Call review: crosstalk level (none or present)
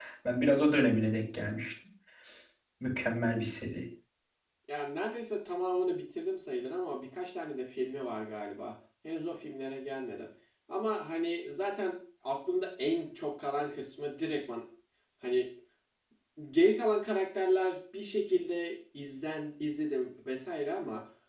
none